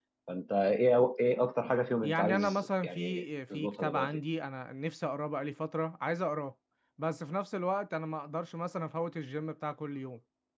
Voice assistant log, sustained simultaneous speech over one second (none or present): present